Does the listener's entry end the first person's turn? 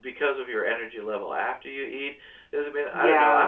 No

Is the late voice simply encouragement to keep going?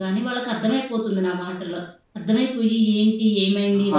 Yes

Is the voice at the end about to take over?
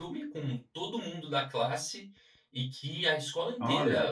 No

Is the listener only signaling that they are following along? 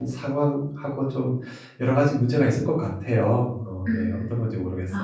No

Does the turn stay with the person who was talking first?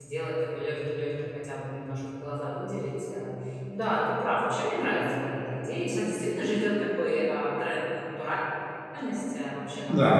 Yes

